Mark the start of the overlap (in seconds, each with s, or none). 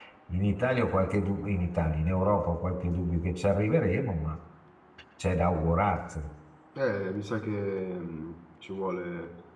none